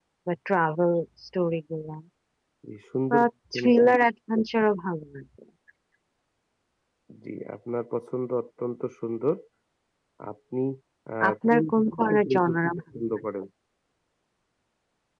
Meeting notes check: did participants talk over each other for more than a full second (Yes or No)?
Yes